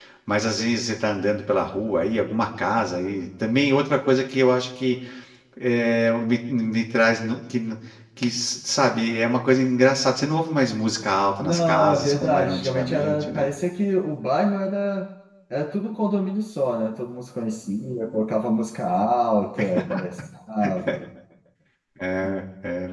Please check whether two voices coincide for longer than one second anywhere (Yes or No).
Yes